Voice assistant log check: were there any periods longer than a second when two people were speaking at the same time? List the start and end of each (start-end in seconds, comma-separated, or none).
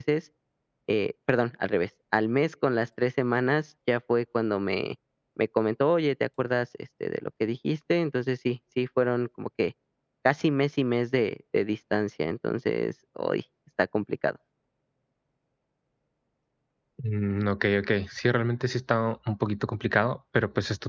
none